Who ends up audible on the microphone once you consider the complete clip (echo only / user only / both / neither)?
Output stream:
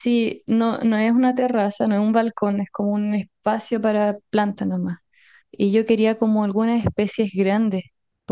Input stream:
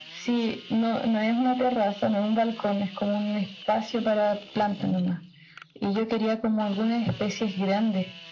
both